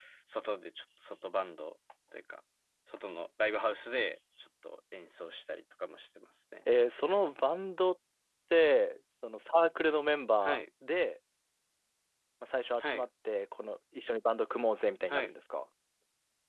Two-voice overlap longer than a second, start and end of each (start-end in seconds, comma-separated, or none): none